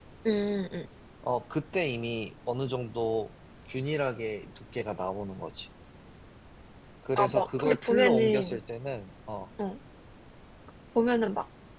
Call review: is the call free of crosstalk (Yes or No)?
No